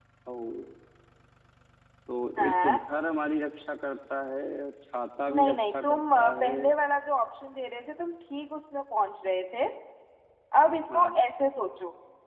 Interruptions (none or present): present